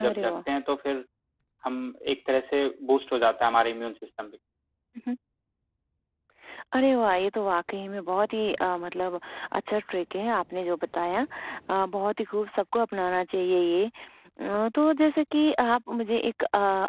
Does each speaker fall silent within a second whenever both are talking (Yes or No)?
Yes